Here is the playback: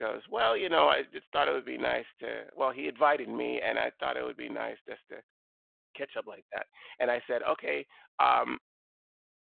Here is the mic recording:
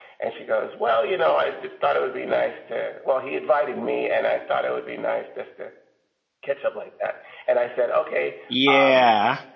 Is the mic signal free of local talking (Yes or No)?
No